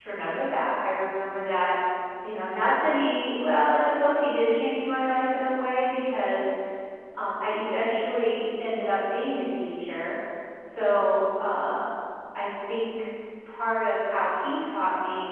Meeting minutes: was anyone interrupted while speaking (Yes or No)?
No